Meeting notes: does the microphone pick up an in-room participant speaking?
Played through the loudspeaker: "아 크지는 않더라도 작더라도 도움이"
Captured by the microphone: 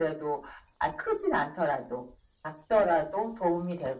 No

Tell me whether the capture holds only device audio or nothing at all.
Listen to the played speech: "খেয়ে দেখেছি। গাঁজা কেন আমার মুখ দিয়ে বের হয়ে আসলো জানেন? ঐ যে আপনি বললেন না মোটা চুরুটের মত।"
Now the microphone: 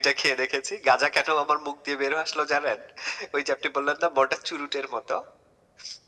Yes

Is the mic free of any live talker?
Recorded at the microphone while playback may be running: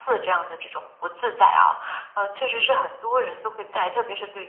Yes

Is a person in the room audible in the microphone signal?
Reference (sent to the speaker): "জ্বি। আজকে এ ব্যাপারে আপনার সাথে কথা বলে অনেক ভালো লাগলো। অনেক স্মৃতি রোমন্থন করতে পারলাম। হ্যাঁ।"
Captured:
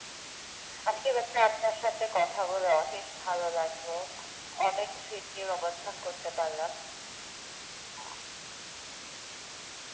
No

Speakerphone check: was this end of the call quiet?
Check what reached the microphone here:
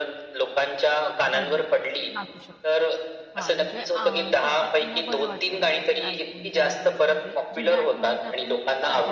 No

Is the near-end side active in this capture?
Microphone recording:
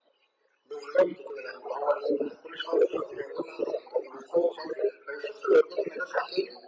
No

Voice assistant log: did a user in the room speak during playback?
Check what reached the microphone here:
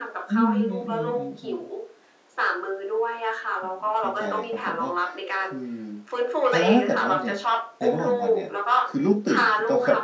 Yes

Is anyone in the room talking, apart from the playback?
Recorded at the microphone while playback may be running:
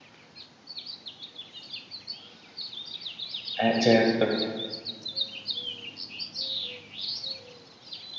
Yes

